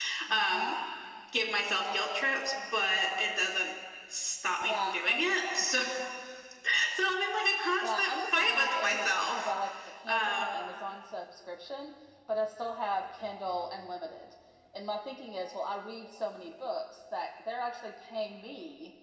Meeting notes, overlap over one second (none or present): present